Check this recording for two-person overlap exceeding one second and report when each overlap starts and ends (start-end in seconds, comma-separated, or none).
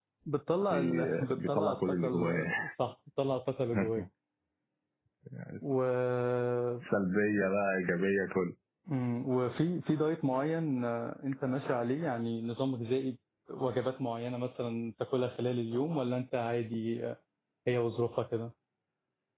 0.7-2.5